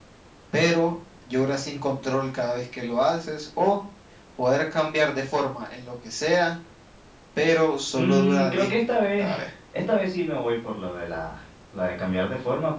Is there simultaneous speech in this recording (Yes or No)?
Yes